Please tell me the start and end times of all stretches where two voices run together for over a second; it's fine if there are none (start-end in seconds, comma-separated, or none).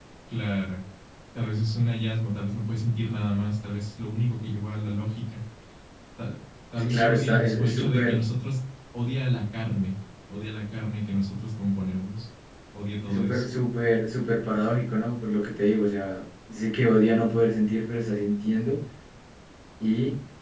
6.8-8.2